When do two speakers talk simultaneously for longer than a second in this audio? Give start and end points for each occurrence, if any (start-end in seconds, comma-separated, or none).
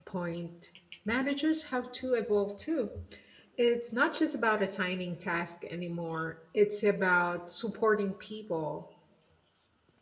none